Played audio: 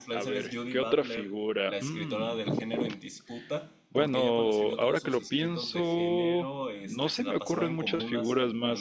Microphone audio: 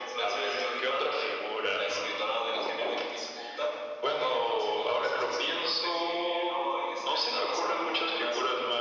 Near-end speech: none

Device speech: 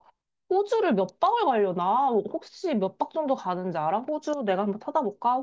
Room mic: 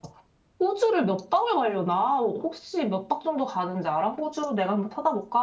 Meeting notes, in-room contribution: none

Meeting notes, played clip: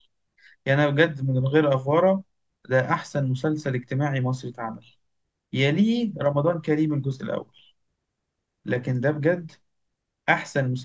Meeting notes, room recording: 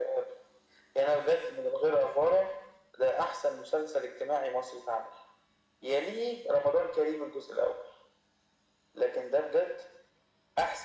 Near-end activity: none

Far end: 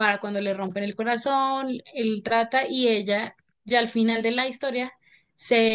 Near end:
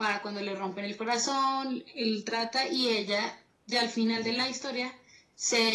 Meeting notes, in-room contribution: present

